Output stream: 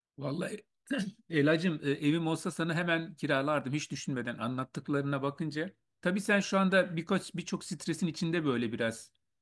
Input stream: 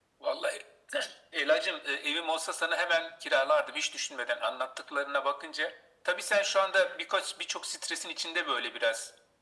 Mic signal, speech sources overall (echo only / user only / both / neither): echo only